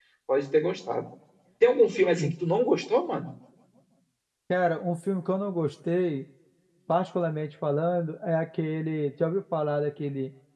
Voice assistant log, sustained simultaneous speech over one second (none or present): none